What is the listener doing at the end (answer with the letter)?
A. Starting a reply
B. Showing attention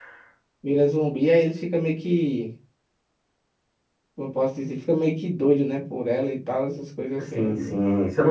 A